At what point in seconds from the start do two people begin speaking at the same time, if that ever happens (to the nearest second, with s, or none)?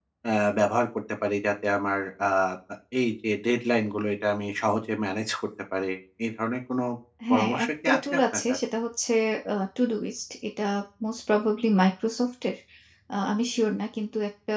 7 s